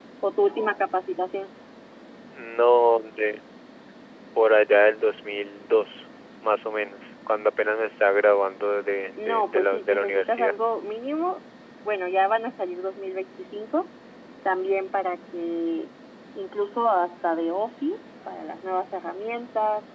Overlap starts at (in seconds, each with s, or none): 9.2 s